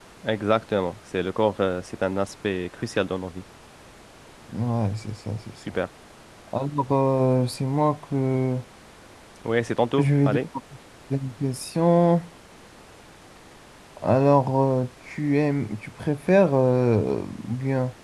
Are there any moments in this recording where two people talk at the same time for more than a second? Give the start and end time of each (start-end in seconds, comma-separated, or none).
none